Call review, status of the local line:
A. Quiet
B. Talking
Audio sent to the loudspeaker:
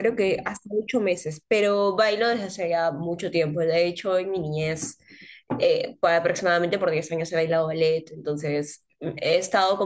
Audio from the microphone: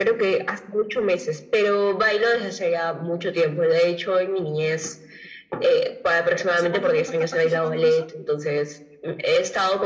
B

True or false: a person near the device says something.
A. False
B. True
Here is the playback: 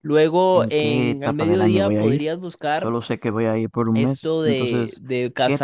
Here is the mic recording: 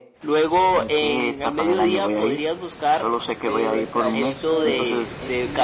B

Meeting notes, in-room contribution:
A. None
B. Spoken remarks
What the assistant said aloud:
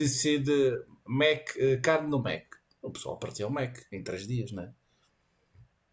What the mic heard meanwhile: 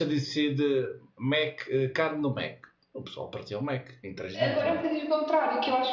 B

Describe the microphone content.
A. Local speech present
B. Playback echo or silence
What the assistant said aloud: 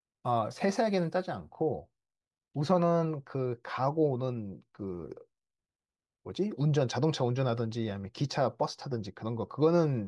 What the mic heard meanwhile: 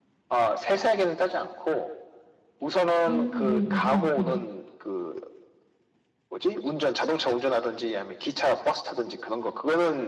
A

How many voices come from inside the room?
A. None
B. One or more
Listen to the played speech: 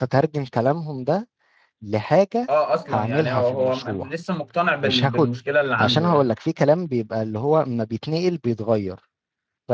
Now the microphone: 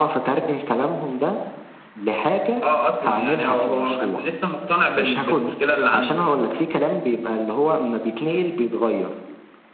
A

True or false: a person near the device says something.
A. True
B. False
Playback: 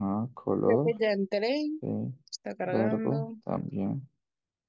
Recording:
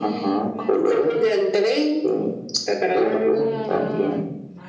A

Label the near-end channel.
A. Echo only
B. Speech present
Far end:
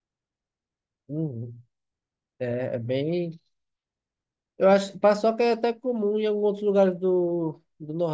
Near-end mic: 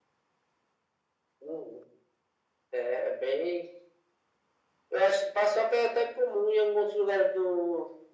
A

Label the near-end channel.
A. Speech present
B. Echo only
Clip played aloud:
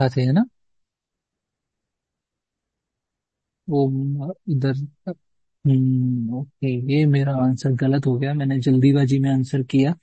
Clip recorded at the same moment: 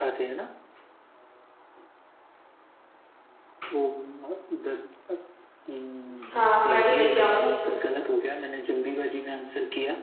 A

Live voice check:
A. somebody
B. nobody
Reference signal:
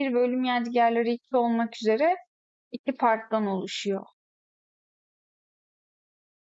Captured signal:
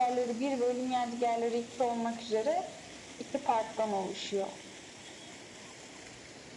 B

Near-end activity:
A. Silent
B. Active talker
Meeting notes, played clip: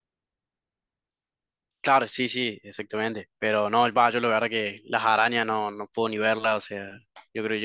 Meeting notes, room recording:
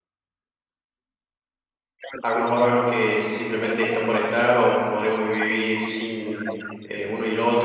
B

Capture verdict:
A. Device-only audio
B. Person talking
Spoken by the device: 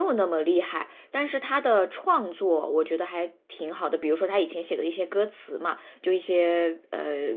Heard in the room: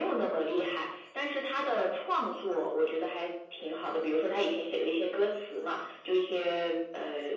A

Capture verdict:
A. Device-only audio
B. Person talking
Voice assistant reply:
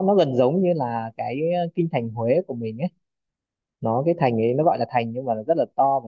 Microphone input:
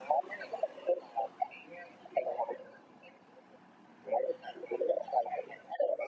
A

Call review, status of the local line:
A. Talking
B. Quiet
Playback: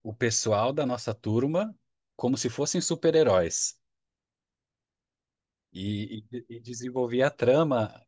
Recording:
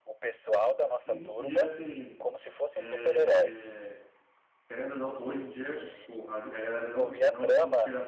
A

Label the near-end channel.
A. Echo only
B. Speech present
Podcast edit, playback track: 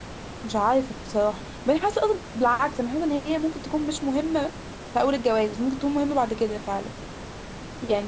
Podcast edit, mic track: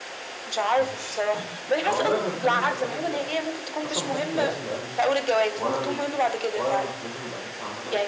B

